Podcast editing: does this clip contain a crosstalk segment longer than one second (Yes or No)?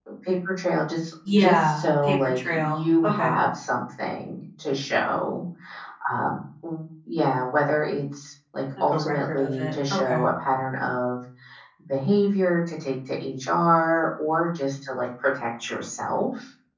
Yes